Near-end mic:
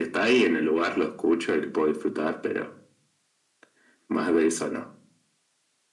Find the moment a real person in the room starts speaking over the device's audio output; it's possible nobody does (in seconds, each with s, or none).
none